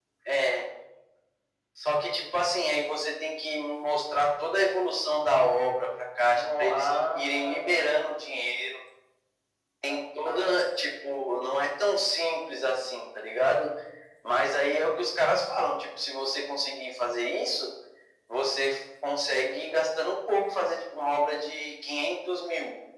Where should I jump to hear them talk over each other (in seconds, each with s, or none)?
6.3 s